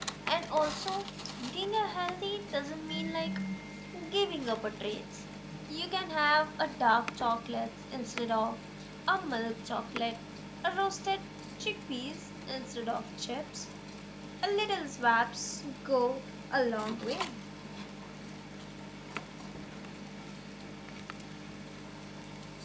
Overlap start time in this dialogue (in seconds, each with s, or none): none